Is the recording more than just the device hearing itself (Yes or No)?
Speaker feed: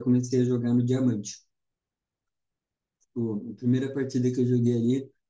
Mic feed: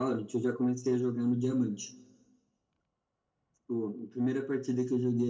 No